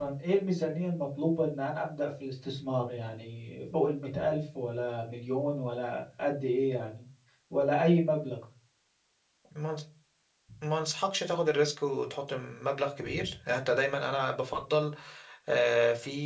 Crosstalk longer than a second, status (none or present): none